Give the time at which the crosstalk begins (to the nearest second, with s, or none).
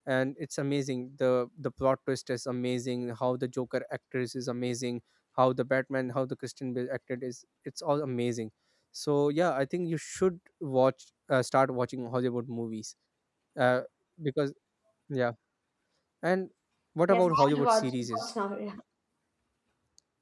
17 s